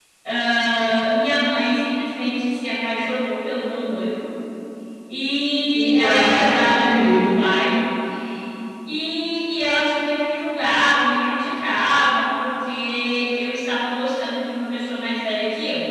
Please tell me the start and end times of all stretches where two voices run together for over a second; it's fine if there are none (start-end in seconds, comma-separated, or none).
5.7-7.3